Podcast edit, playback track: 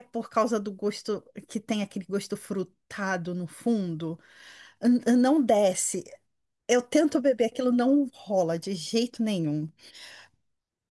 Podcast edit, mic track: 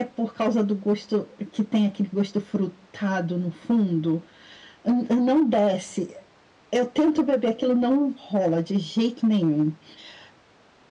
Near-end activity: none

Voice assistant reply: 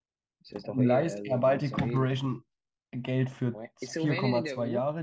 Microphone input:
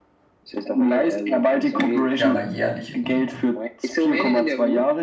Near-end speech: present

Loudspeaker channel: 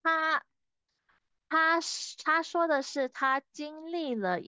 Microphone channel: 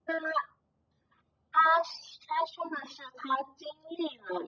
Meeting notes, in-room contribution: none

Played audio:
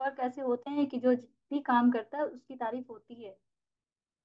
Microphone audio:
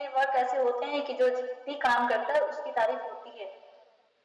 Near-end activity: none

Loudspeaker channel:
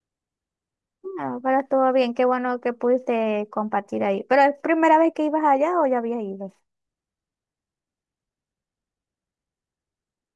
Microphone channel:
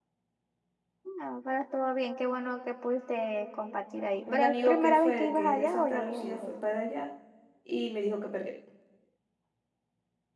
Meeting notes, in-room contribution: present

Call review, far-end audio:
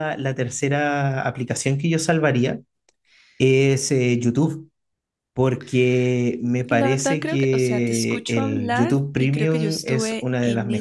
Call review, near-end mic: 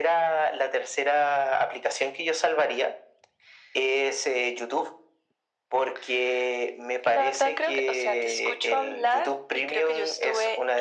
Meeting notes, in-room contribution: none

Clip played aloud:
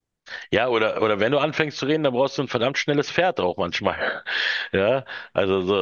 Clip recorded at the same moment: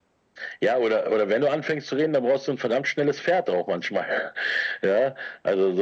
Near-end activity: none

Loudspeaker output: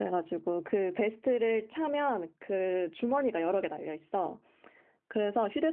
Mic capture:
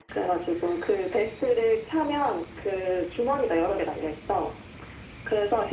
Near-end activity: none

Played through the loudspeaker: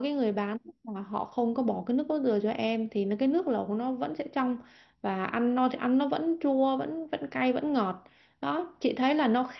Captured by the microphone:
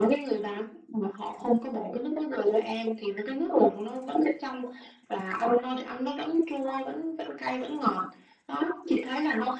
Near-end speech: none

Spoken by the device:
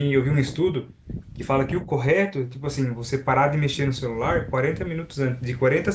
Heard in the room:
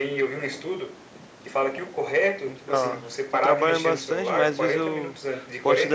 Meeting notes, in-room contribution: present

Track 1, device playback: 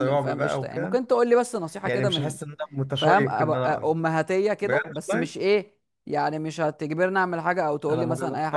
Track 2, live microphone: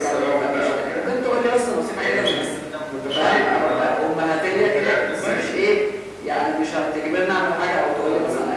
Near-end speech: present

